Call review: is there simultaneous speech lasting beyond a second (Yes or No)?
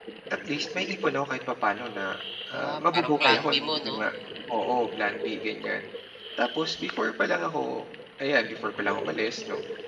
Yes